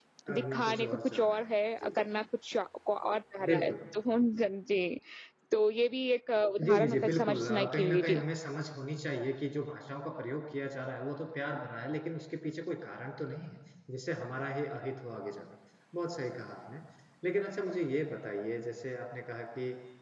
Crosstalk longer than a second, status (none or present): present